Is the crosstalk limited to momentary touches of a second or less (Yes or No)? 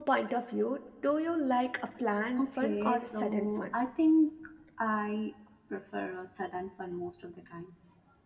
No